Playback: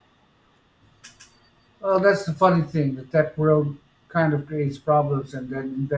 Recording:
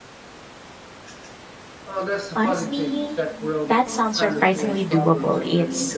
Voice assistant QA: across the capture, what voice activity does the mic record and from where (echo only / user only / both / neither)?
both